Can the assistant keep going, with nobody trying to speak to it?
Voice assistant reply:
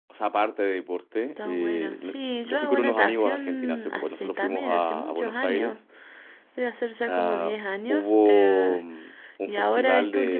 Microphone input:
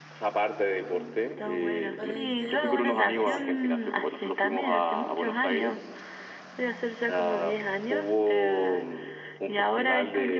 No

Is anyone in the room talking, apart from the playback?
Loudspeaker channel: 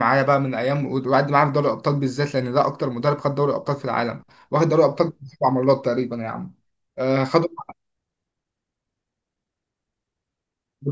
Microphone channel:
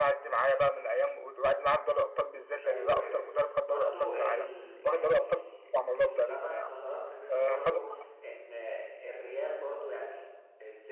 Yes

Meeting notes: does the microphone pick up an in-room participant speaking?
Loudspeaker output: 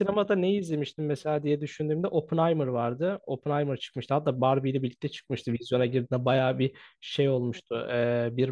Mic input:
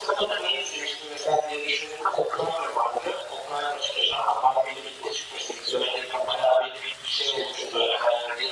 No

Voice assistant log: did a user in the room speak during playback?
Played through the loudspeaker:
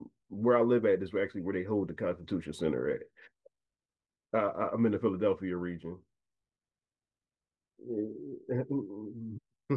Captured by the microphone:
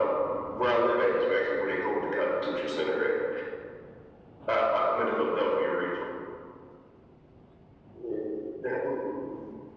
No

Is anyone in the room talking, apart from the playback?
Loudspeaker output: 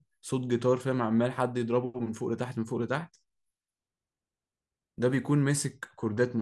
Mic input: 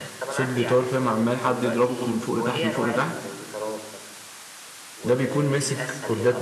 Yes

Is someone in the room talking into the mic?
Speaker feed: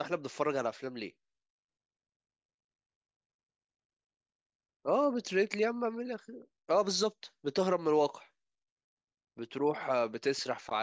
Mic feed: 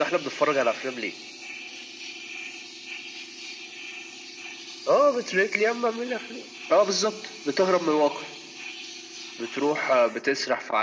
No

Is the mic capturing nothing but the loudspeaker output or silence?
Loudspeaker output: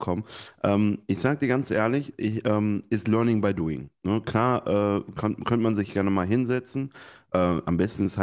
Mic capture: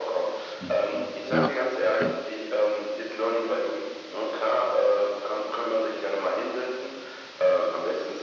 No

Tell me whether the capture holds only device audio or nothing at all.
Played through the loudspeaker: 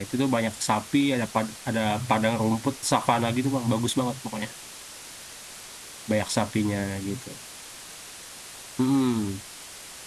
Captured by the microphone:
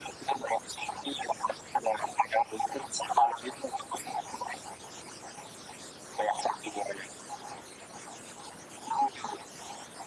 Yes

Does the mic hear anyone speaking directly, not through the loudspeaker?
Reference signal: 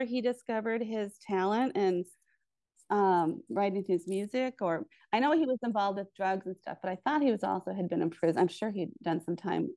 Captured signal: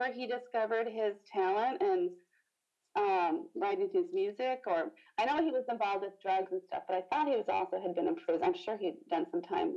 No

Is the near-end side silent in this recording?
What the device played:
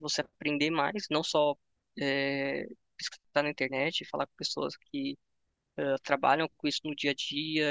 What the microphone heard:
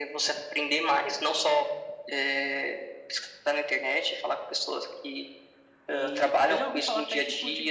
No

